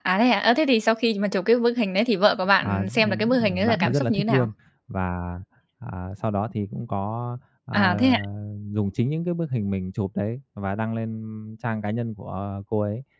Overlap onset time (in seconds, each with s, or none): 2.6 s